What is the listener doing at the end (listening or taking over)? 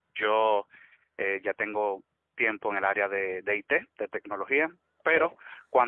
listening